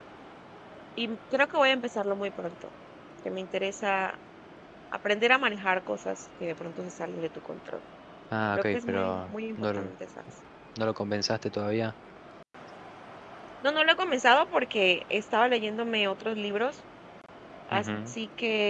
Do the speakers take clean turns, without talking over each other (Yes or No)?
No